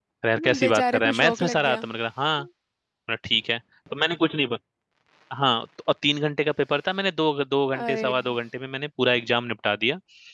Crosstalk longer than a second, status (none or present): present